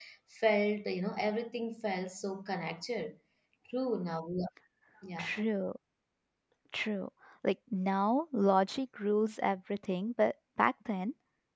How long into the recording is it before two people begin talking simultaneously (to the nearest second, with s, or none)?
none